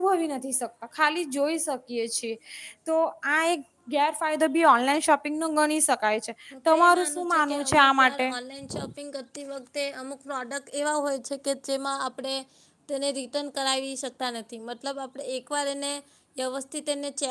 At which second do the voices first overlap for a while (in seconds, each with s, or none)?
6.7 s